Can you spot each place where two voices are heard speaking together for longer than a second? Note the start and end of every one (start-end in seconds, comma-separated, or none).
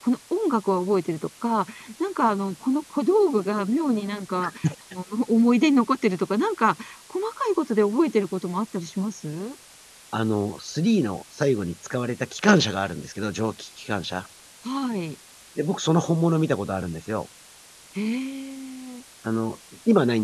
none